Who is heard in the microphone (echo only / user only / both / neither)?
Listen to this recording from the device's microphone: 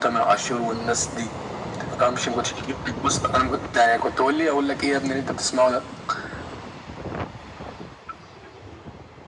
echo only